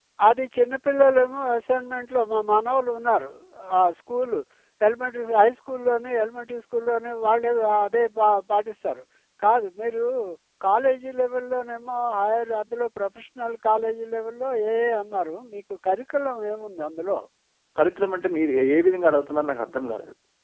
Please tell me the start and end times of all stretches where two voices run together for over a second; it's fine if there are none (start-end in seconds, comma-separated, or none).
none